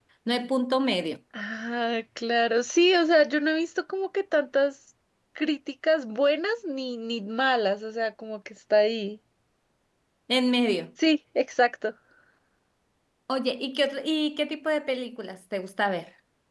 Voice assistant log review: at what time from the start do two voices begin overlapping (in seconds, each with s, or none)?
none